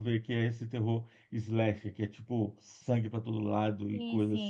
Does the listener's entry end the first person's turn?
No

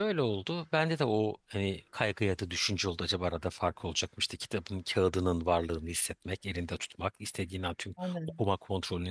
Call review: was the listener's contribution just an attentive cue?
Yes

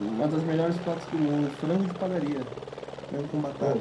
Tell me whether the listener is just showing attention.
No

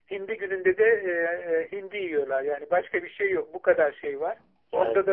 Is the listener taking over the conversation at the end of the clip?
No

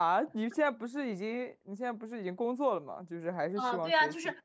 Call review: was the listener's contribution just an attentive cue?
No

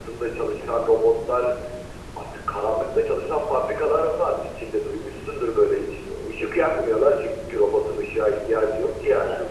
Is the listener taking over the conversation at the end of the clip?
Yes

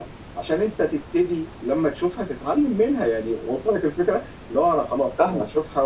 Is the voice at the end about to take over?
No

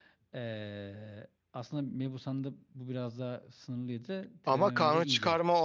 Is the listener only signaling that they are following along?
No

